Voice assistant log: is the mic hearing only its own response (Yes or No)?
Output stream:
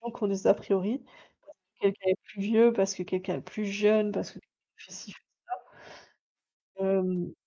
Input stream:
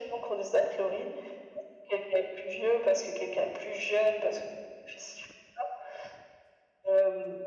Yes